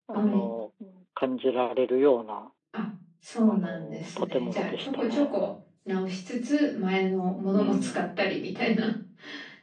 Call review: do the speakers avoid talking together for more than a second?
No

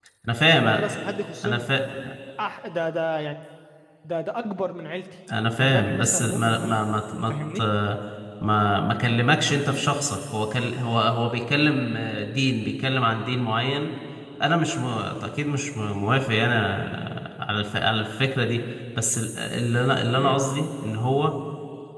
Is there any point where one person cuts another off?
Yes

